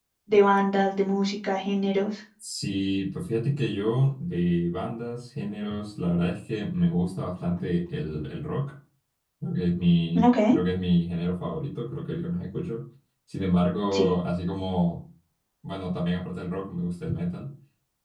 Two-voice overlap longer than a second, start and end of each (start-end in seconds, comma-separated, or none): none